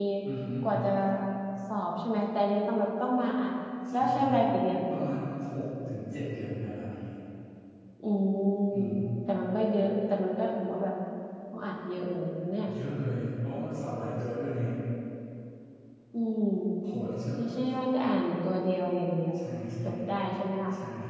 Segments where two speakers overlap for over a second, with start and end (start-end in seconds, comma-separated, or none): none